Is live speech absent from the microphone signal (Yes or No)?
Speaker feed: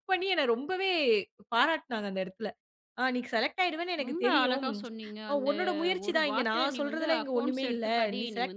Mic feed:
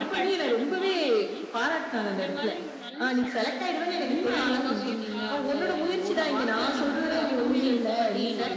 No